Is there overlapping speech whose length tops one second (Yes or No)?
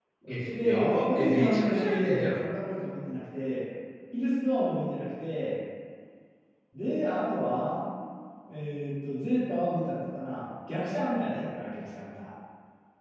Yes